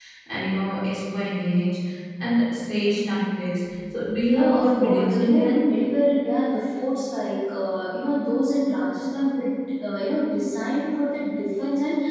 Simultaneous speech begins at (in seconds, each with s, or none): 4.1 s